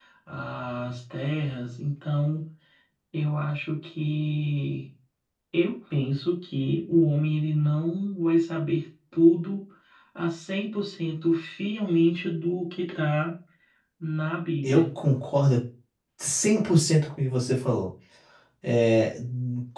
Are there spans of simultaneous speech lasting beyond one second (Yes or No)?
No